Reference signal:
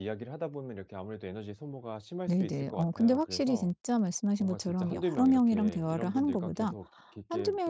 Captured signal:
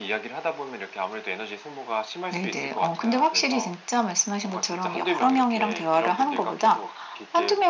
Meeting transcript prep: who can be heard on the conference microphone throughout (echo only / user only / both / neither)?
echo only